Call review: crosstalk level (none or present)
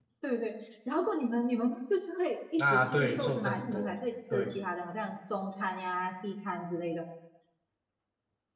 present